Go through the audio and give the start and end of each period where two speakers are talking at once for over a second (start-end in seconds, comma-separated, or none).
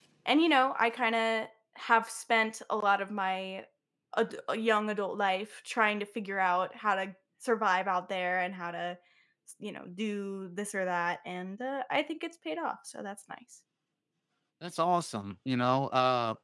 none